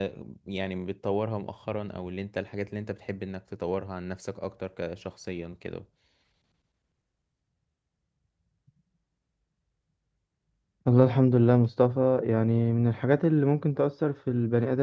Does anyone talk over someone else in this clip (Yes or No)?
No